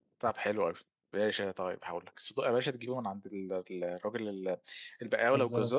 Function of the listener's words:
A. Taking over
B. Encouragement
B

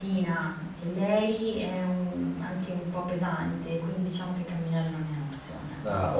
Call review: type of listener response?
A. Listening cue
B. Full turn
B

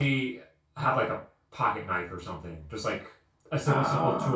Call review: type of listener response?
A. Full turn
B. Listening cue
B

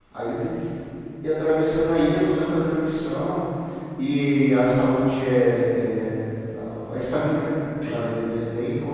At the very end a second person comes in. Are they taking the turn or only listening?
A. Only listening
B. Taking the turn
A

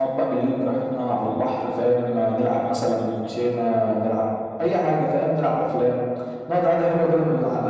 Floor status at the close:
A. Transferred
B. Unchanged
A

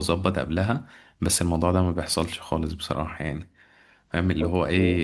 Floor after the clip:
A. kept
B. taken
A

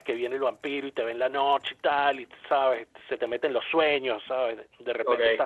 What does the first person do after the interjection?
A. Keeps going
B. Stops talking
A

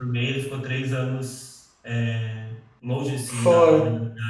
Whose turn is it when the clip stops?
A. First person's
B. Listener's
A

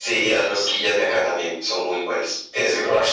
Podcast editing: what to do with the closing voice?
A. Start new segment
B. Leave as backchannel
A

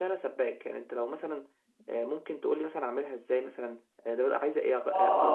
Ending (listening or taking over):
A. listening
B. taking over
B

